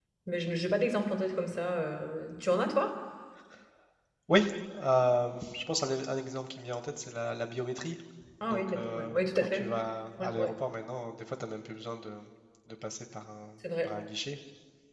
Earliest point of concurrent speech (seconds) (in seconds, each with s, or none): 8.4 s